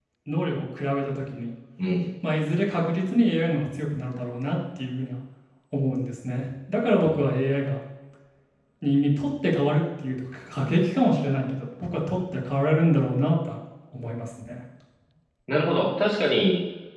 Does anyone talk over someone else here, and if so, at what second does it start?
none

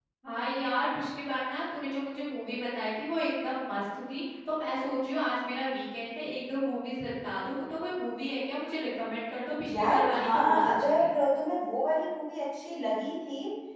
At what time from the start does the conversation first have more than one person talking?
9.7 s

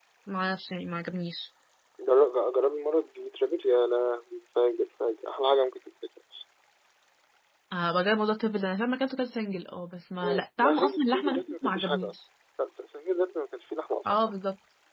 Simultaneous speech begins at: 10.2 s

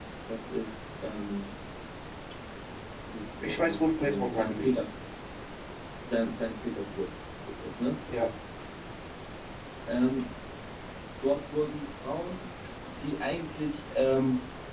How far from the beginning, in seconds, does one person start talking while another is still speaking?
3.4 s

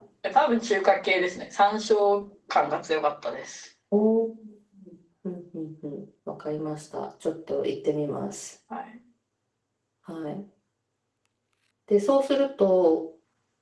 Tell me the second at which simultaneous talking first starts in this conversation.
none

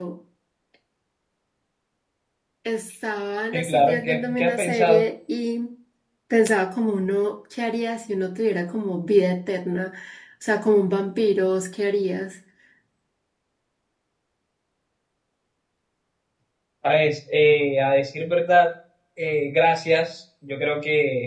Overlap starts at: 3.5 s

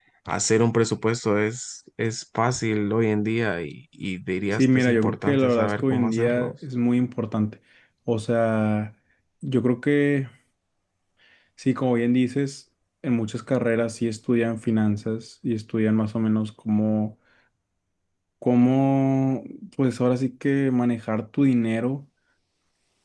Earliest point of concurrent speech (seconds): 4.5 s

